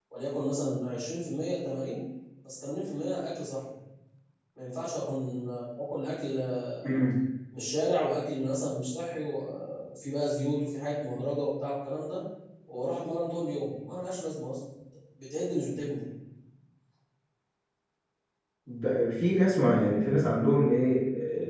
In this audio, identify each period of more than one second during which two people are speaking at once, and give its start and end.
none

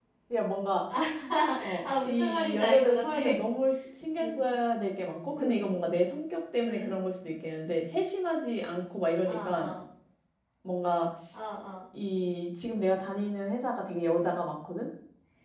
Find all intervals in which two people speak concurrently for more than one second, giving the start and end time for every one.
1.8-3.2

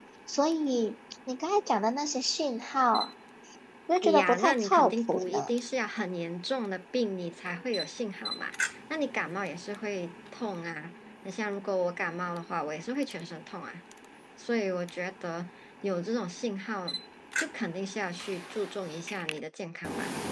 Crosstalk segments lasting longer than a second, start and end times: 4.0-5.5

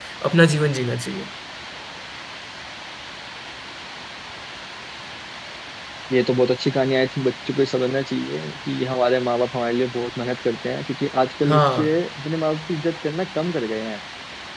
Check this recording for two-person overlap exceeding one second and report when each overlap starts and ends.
none

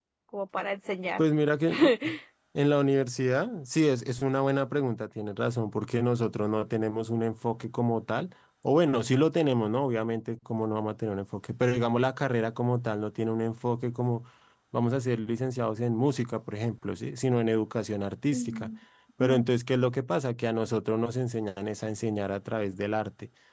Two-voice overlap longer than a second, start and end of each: none

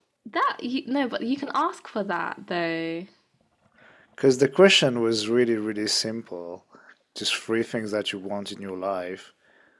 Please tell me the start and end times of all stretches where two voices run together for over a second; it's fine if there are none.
none

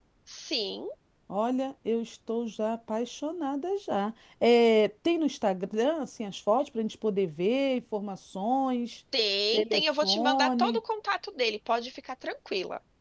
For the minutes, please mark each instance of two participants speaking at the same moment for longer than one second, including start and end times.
9.5-10.8

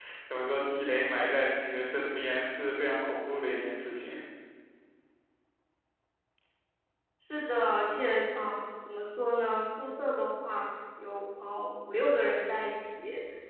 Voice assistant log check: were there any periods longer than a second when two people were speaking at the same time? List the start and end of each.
none

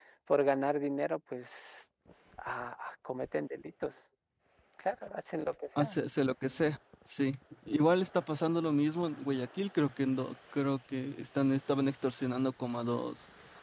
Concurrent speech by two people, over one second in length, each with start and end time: none

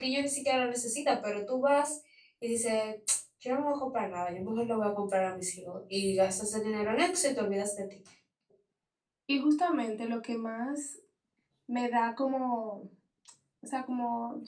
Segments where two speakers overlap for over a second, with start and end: none

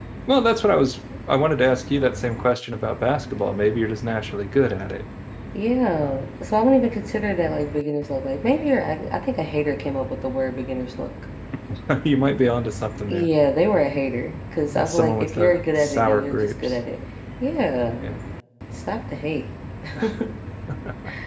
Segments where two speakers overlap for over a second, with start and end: 14.7-16.8

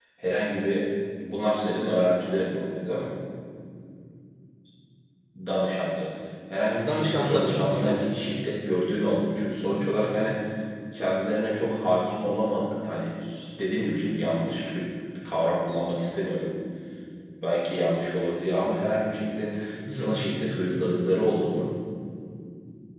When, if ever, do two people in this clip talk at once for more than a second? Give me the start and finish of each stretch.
6.8-8.1

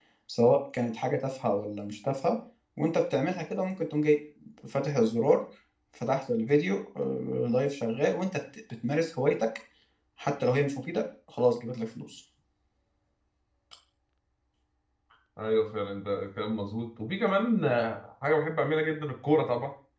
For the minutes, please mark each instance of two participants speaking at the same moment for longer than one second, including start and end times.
none

